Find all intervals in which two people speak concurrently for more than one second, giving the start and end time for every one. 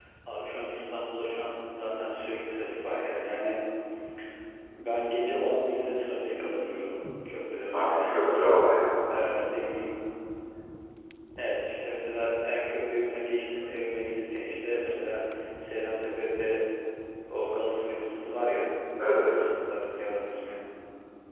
none

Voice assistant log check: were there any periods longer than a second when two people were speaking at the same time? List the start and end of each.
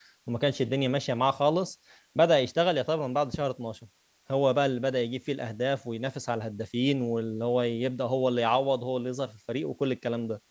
none

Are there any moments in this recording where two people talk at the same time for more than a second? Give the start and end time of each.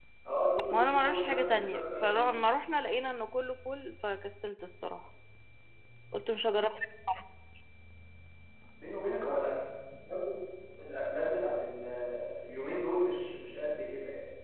0.7-2.3

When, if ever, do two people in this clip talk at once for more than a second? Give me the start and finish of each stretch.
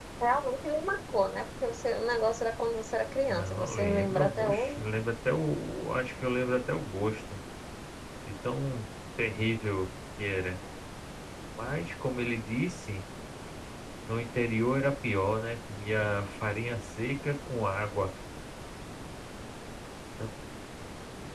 3.3-4.8

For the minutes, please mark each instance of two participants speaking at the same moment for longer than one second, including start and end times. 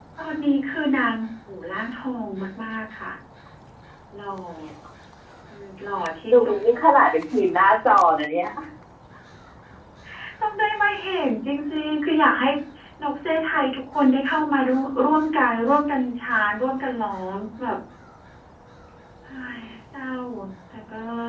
none

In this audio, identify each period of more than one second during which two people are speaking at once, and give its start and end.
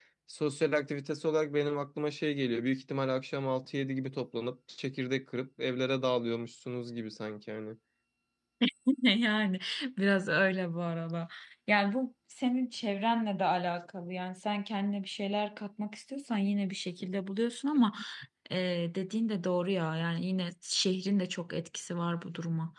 none

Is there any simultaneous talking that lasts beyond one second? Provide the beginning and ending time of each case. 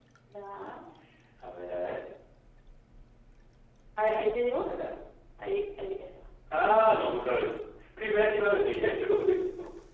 none

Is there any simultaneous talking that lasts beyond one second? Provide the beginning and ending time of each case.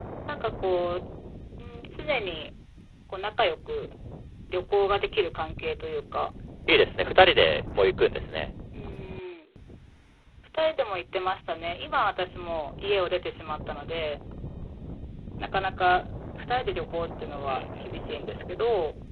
none

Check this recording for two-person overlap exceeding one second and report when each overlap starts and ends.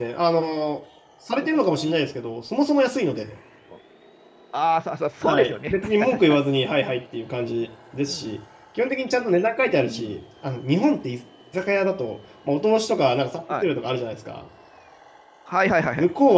5.2-6.4

